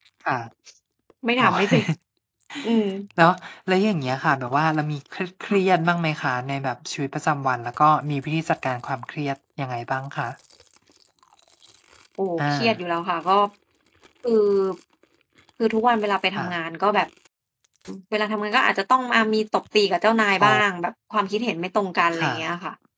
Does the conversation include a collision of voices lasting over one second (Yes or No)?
No